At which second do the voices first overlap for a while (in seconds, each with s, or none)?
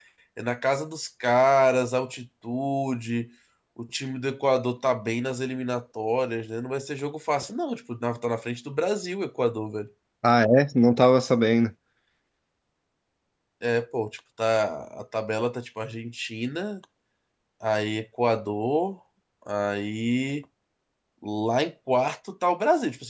none